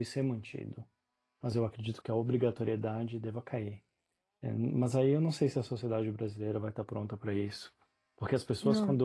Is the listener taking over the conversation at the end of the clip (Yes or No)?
No